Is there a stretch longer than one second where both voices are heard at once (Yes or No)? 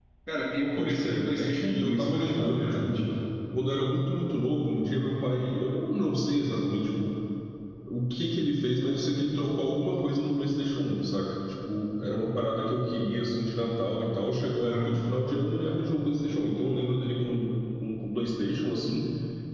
Yes